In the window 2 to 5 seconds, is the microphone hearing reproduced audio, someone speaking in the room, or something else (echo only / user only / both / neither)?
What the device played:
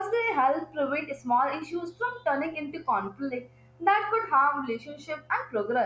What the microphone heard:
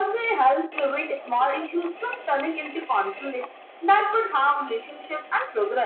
echo only